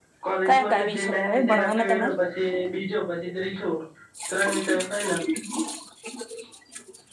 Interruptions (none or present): present